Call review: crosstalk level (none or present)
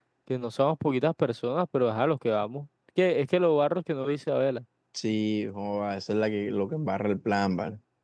none